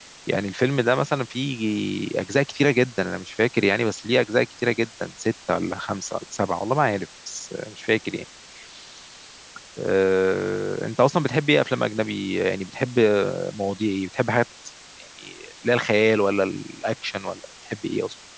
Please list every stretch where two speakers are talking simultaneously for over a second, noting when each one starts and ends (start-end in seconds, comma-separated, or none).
none